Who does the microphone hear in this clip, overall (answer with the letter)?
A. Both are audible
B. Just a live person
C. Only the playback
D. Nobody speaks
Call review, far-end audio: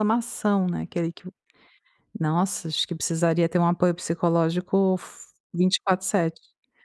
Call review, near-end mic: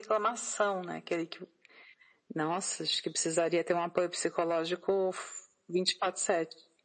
C